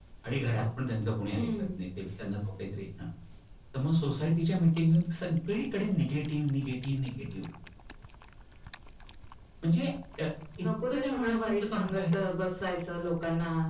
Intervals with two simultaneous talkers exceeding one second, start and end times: 10.6-12.0

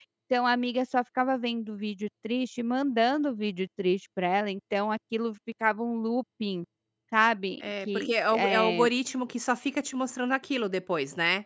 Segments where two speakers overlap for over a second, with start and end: 7.6-8.9

